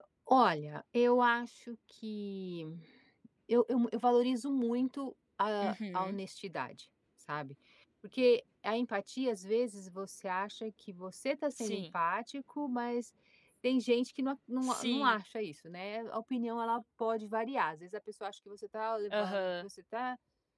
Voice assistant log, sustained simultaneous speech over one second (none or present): none